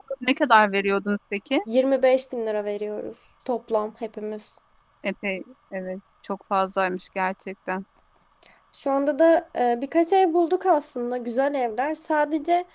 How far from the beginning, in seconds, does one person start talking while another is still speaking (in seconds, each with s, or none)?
none